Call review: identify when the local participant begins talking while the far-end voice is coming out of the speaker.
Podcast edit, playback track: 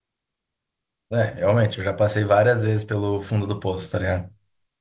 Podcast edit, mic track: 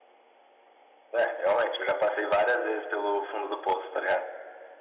none

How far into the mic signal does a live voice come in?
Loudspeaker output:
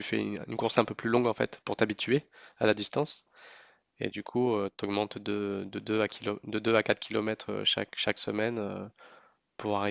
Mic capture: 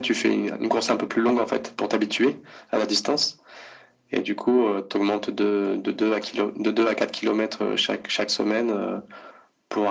none

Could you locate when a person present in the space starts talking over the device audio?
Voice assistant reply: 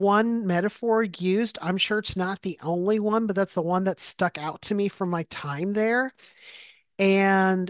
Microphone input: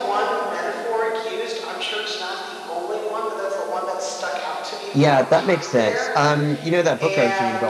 4.9 s

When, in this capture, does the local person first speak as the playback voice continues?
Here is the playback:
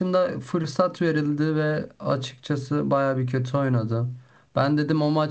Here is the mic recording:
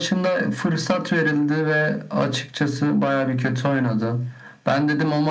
none

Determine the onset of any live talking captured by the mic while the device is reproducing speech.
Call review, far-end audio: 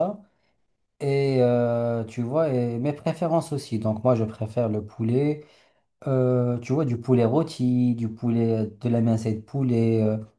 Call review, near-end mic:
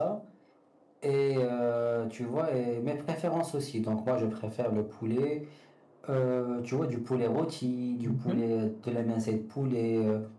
8.0 s

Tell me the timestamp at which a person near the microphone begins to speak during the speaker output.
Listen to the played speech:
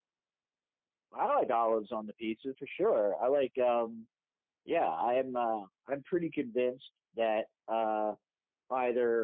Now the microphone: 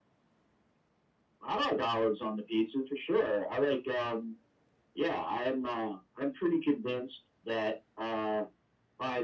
none

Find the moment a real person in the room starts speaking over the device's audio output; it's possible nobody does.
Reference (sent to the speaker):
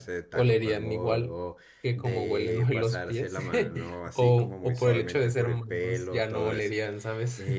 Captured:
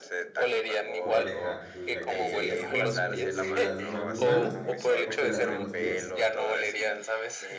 1.0 s

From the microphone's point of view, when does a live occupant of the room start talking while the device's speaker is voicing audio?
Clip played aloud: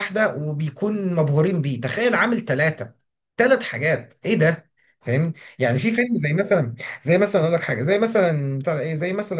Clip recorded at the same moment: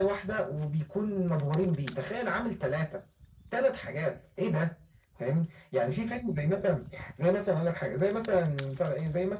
none

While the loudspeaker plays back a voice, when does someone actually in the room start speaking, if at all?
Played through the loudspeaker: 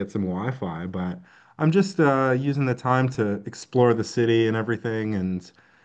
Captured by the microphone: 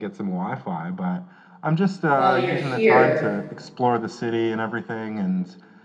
2.1 s

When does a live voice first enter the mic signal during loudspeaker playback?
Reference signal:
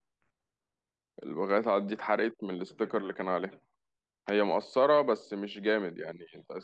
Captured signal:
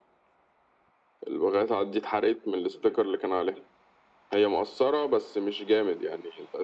none

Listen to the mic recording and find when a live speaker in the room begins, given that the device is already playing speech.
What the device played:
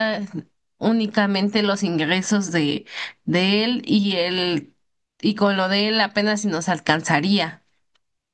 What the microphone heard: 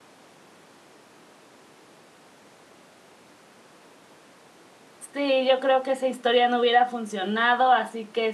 5.1 s

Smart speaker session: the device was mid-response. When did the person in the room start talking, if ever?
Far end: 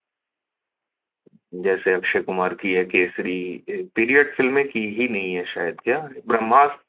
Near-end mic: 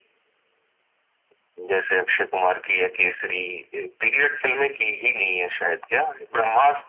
none

